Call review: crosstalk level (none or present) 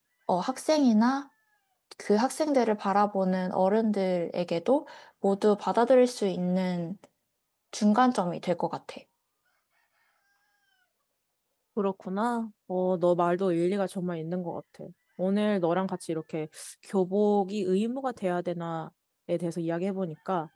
none